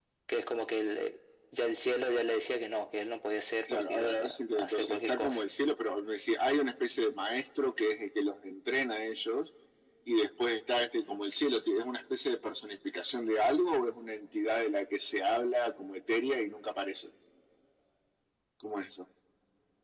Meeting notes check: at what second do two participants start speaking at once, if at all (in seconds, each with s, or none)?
3.7 s